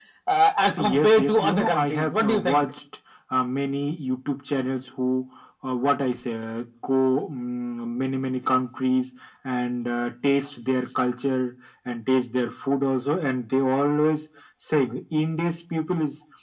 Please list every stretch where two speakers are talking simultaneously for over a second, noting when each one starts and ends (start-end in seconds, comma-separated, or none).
0.8-2.6